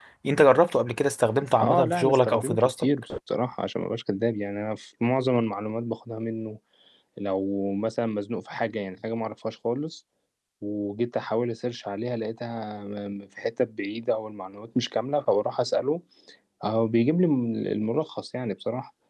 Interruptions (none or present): present